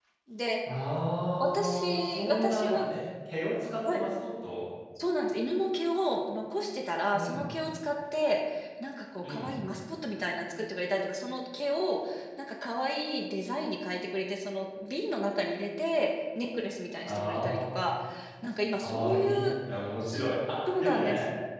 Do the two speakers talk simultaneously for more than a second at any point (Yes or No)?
Yes